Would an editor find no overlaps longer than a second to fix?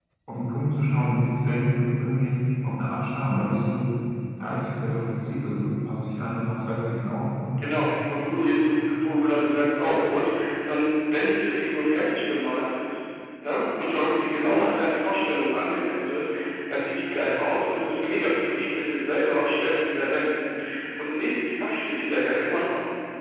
Yes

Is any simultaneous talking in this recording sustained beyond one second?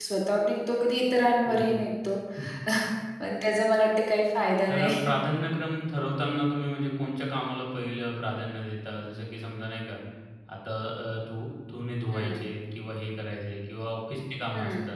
No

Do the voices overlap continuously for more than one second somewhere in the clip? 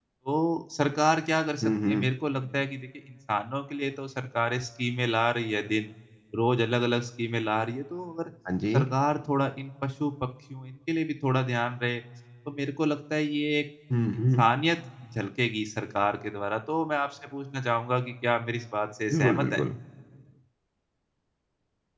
No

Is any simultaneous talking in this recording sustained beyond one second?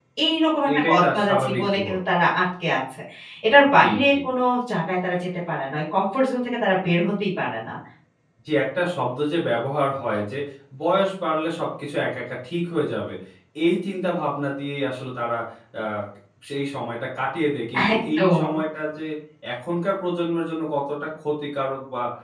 Yes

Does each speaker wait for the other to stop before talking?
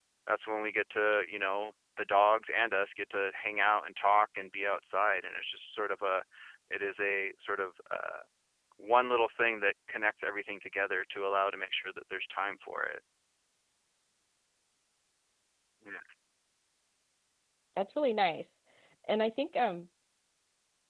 Yes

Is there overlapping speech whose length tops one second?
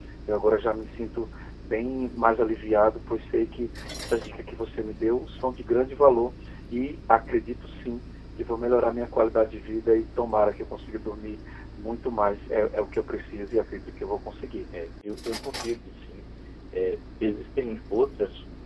No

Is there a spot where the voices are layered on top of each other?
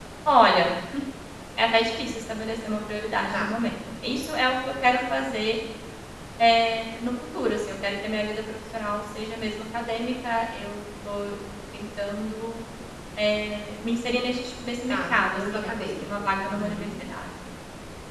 Yes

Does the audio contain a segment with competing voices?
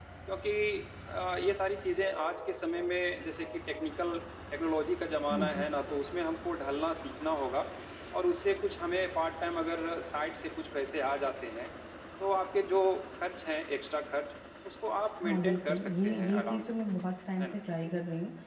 Yes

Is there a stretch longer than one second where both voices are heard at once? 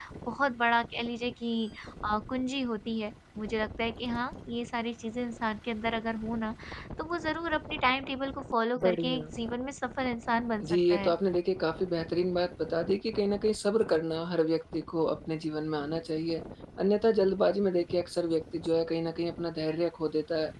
No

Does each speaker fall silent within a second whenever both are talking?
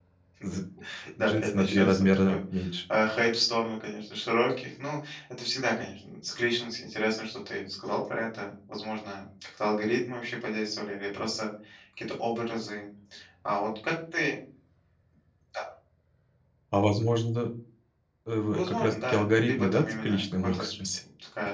No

